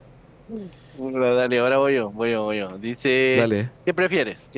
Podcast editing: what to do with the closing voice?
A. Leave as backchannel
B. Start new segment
A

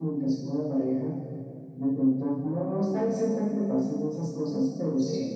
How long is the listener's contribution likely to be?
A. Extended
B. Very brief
B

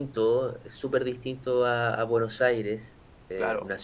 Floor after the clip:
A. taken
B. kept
B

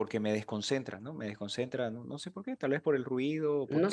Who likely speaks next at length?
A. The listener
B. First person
A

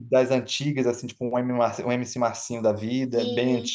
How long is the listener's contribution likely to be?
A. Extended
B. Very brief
A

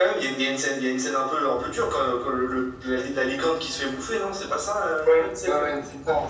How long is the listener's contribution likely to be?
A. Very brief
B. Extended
B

